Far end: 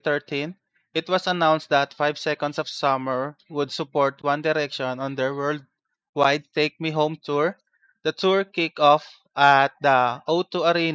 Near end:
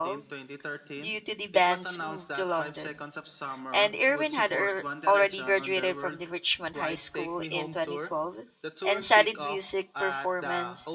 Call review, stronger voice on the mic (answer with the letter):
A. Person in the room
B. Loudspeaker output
A